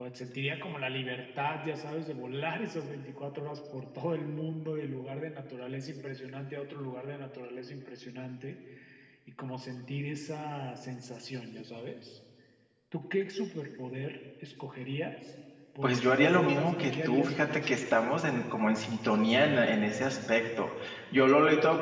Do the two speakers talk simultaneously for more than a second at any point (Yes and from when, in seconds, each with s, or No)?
Yes, from 15.8 s